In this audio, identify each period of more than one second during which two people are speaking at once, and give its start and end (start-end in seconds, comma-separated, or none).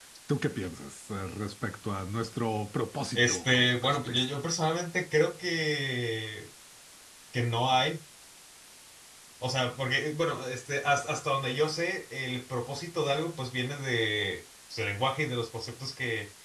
3.1-4.4